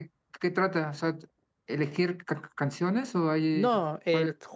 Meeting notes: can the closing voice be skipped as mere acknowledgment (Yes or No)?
No